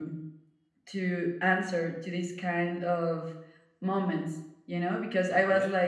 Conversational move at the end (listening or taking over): listening